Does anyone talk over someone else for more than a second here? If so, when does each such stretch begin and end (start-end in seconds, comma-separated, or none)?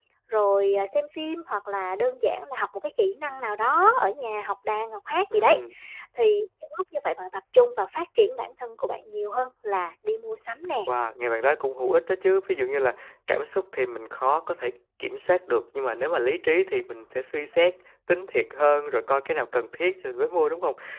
none